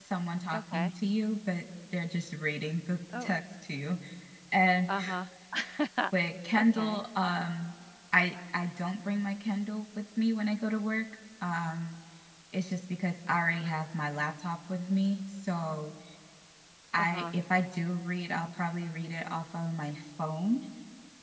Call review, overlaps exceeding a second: none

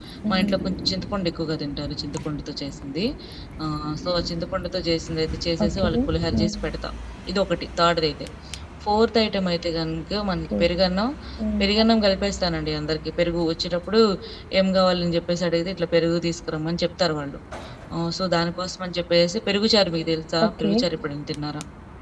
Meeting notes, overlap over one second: none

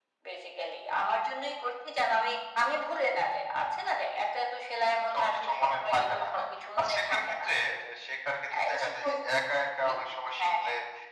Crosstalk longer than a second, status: present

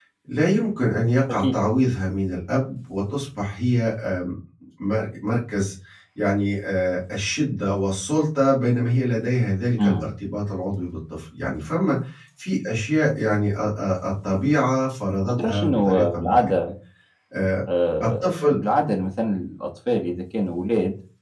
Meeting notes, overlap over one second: present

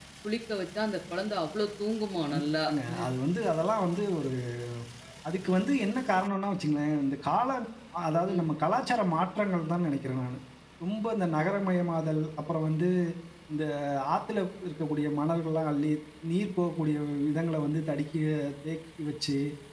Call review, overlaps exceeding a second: none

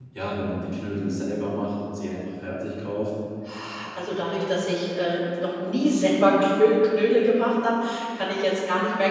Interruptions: none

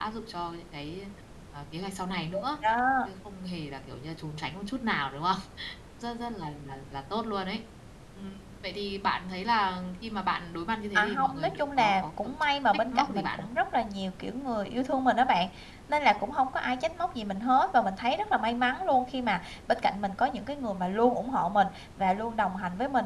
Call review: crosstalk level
present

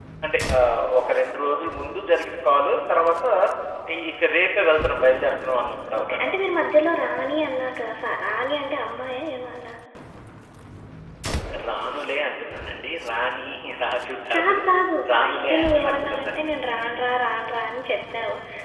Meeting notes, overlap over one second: present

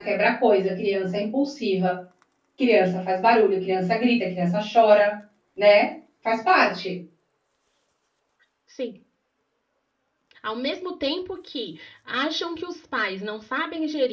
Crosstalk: none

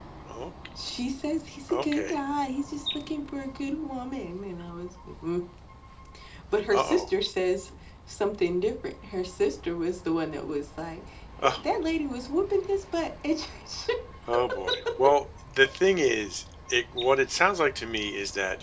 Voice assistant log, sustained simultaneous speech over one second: none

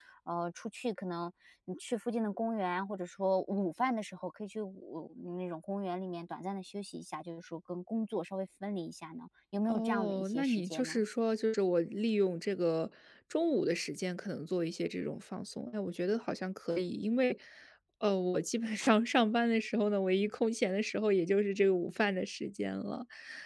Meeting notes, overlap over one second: present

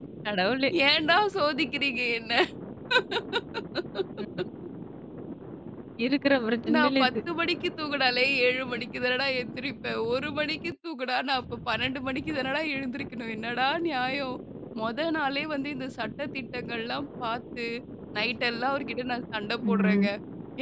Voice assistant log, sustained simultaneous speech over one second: none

